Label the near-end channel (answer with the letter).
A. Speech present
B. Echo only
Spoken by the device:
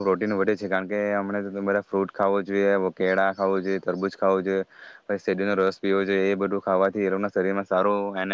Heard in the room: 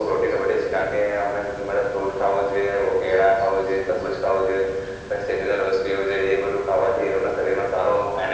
B